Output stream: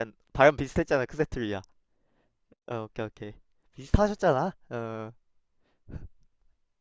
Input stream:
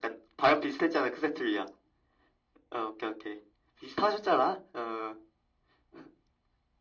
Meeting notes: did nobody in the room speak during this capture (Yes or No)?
Yes